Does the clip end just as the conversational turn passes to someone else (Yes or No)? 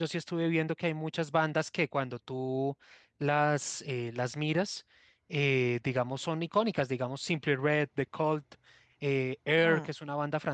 No